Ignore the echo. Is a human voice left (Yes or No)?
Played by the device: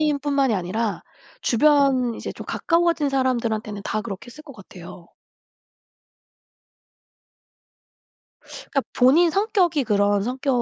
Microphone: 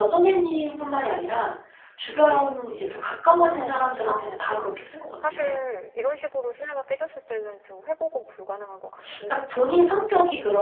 Yes